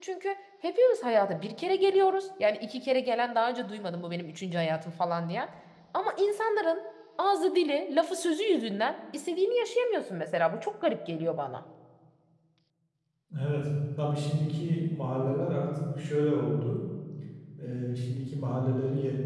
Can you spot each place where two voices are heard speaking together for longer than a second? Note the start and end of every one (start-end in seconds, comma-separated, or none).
none